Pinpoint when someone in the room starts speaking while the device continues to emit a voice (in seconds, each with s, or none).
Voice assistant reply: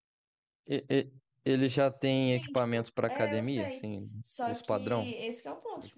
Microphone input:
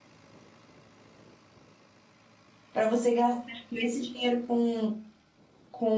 2.7 s